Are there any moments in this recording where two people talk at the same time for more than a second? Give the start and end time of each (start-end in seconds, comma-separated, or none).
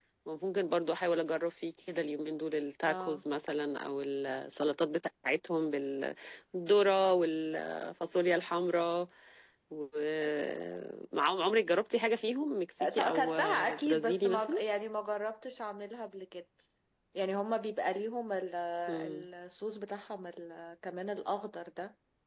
13.0-14.6